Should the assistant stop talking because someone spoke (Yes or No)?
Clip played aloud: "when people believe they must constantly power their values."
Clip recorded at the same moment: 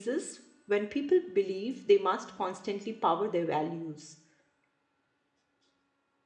No